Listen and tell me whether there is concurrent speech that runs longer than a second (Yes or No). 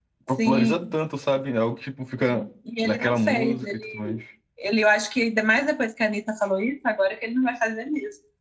Yes